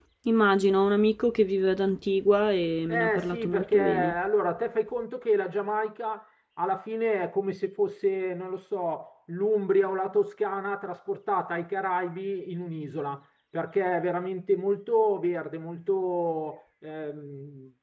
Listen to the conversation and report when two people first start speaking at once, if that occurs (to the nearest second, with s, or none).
3 s